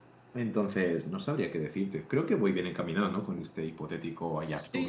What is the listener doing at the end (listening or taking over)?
taking over